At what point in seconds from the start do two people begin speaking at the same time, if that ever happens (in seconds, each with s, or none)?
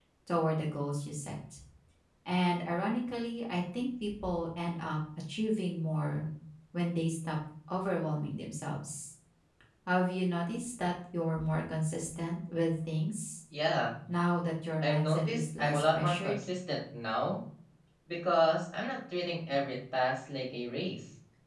14.8 s